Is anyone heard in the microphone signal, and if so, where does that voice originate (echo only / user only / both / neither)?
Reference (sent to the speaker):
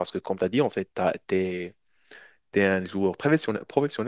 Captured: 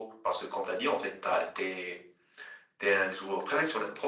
echo only